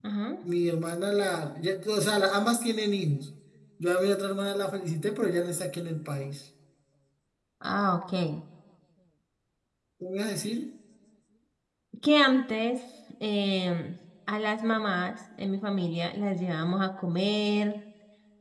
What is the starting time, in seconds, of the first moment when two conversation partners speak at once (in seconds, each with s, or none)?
none